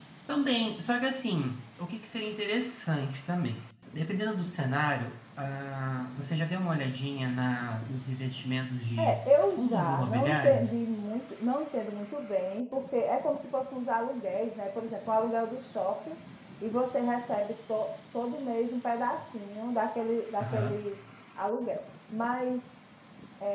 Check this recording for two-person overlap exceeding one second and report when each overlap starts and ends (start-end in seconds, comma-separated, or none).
9.0-10.8